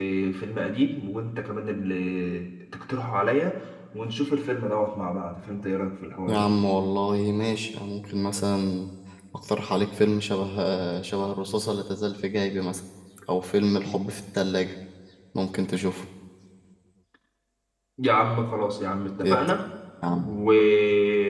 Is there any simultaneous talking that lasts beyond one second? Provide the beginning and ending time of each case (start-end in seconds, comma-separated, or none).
none